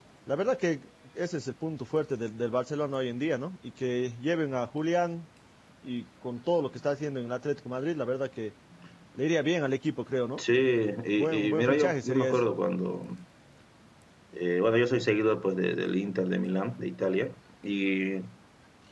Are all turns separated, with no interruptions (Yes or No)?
No